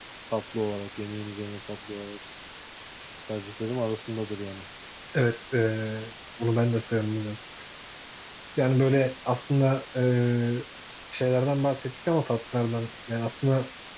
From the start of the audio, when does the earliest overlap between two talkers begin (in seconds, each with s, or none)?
none